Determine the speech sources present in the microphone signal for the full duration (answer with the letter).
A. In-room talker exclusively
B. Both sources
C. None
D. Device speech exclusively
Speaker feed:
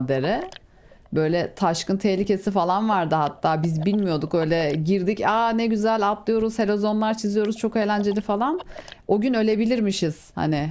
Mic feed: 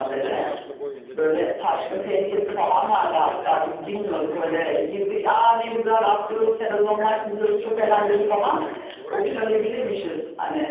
B